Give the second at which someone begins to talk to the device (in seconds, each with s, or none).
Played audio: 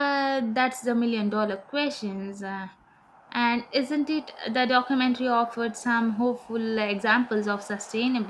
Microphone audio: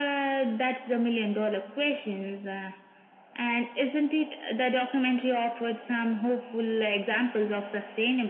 none